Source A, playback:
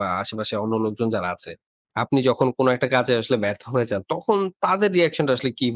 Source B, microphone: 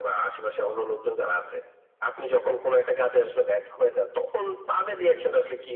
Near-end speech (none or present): none